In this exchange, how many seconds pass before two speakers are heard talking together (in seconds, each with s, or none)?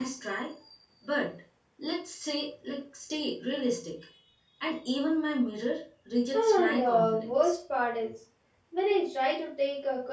6.3 s